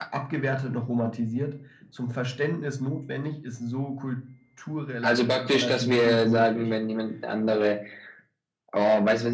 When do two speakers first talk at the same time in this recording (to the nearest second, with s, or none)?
5 s